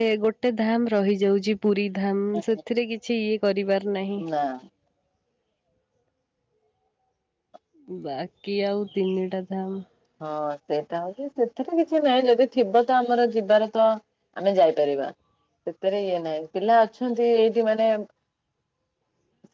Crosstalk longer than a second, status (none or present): none